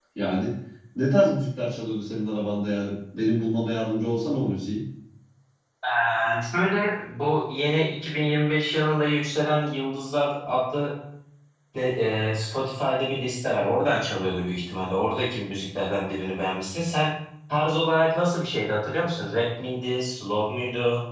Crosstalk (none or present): none